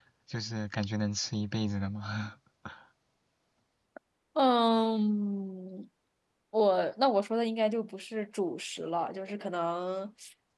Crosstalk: none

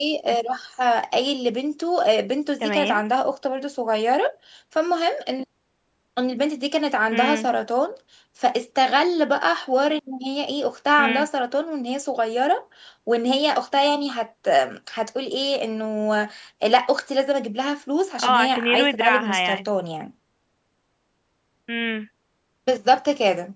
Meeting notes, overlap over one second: present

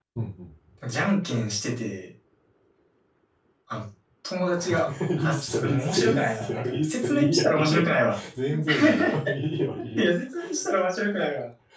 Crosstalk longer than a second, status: present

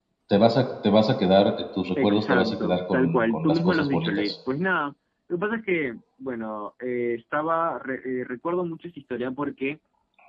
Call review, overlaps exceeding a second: present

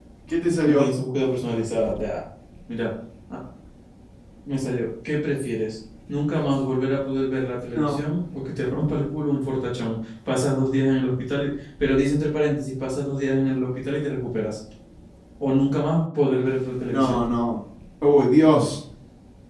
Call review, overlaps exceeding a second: none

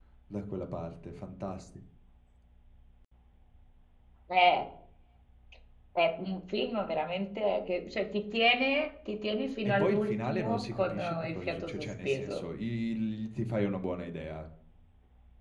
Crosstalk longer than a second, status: present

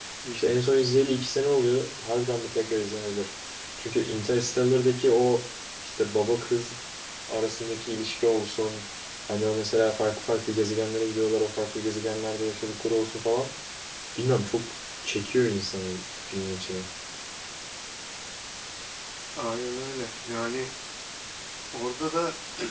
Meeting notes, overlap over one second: none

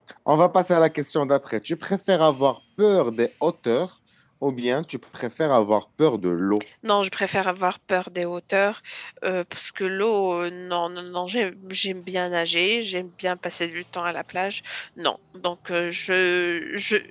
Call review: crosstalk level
none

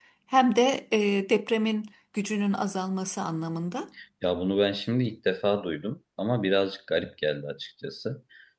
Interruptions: none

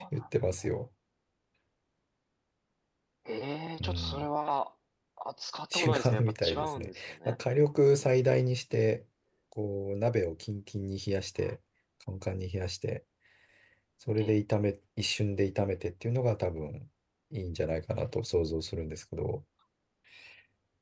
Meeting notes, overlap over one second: present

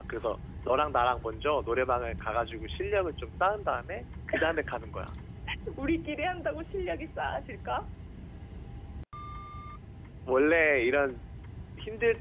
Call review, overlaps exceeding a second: none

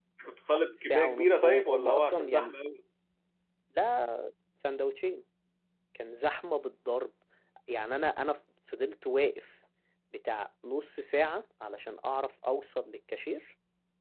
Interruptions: present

